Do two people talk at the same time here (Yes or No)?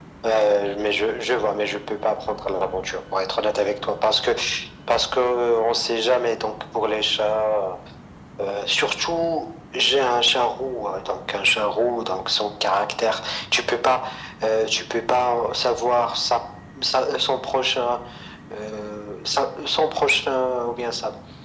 No